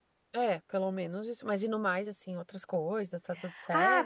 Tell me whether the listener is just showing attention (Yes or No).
No